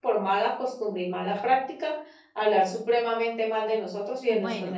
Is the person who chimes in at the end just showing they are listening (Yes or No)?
No